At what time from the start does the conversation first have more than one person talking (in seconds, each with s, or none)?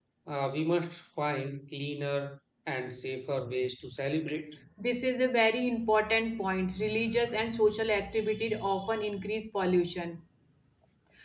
none